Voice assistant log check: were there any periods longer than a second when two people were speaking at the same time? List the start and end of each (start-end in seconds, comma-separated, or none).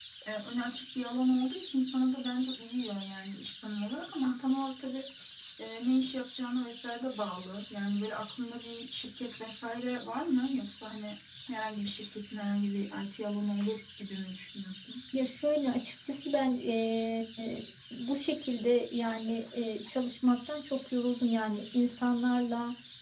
none